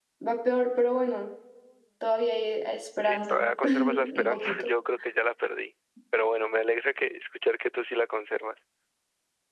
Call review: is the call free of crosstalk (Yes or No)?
No